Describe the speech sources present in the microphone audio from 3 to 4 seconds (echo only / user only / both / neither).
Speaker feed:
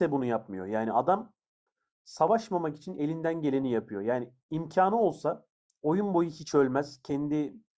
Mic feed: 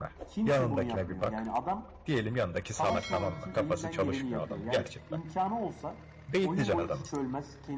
both